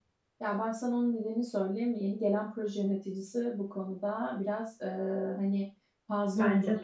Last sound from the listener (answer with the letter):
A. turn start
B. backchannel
B